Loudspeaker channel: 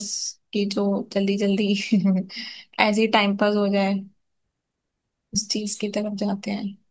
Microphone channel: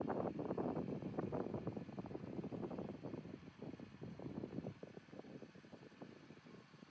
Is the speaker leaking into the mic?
No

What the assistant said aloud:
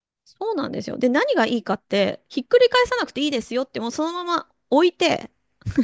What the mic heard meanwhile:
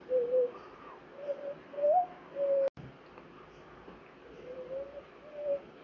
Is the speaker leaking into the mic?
No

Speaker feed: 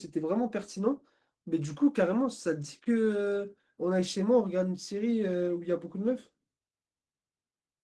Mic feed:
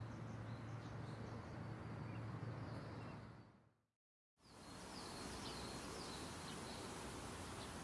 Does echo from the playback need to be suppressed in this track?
No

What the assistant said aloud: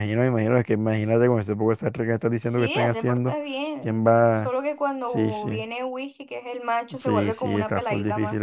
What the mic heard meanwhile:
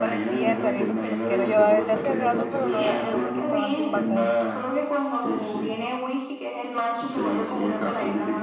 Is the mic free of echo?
No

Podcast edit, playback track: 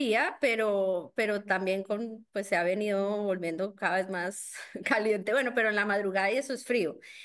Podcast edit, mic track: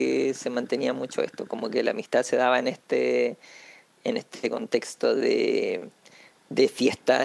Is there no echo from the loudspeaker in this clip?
Yes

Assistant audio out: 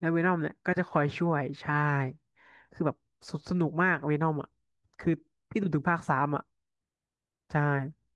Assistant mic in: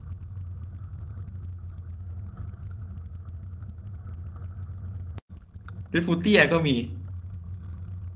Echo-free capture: Yes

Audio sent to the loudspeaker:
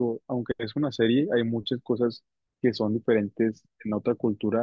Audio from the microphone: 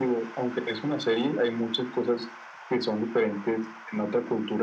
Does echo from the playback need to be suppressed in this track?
Yes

